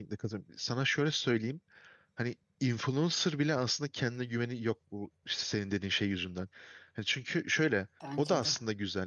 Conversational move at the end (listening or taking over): listening